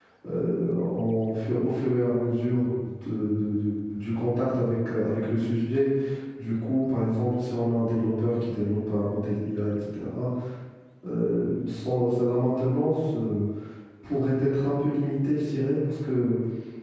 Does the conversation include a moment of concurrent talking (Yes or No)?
No